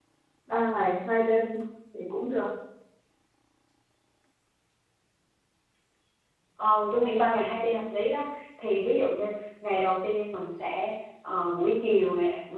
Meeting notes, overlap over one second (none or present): none